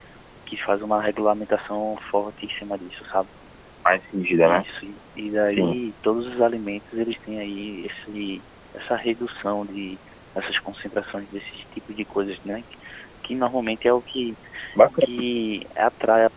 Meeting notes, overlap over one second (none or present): none